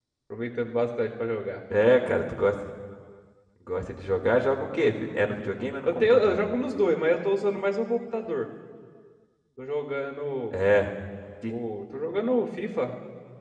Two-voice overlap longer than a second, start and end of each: none

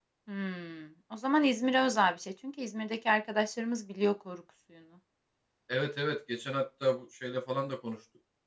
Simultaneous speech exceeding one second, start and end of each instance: none

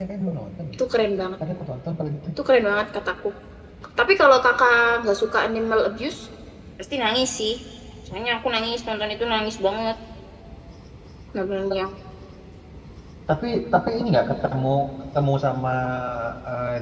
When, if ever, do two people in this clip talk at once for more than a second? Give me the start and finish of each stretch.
none

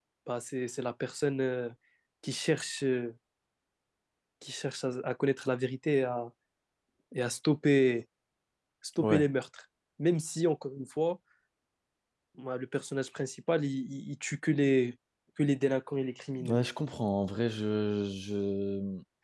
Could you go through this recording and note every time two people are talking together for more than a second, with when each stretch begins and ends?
none

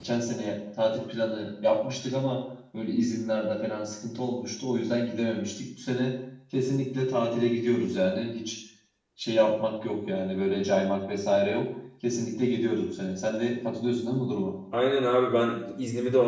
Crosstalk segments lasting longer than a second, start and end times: none

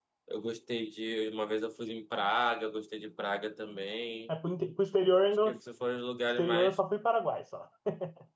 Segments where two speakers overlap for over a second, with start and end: none

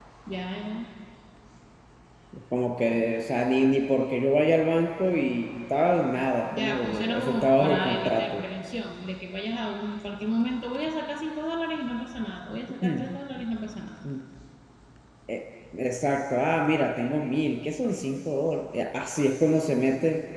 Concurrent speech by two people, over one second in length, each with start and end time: 6.6-8.4

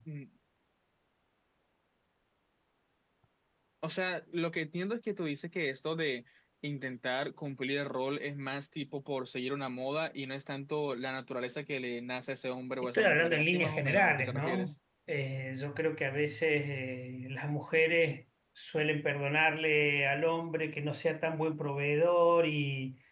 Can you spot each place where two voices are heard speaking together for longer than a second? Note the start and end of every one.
12.9-14.7

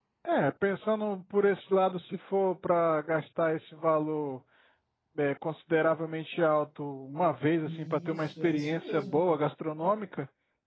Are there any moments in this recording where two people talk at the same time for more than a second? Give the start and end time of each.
7.6-9.2

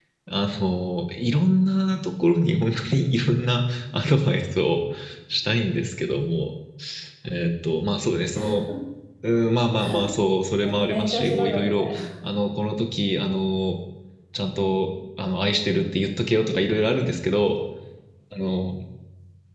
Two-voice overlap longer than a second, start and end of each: 10.5-12.0

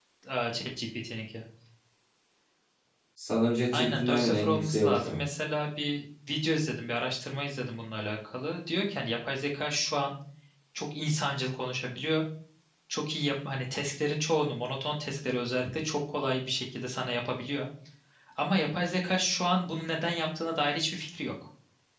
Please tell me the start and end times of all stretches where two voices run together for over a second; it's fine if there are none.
3.7-5.2

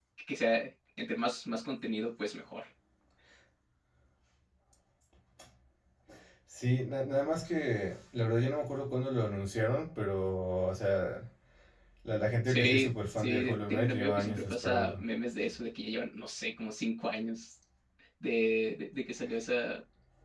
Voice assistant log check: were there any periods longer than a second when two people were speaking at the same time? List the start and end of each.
12.4-15.0

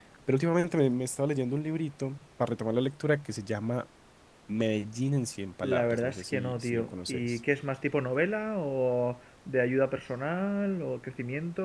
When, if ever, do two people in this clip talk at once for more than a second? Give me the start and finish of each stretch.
5.6-7.4

